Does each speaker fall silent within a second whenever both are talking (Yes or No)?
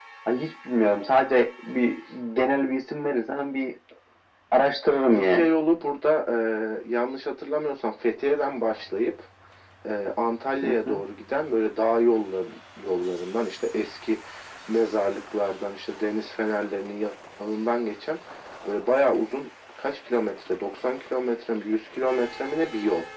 Yes